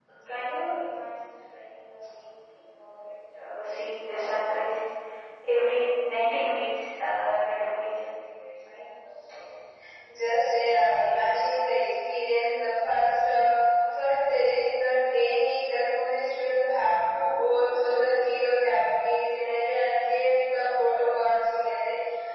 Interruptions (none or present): none